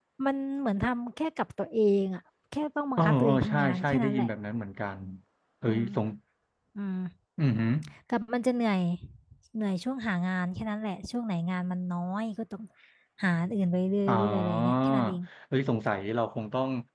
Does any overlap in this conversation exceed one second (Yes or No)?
Yes